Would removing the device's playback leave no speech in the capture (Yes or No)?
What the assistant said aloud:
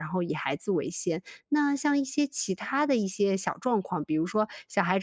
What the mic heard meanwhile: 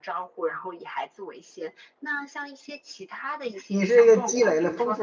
No